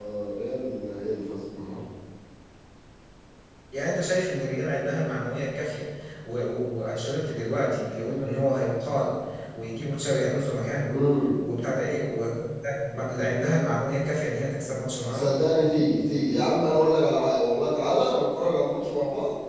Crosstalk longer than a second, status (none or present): none